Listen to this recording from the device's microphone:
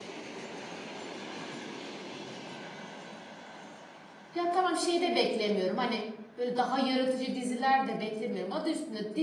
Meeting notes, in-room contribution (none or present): present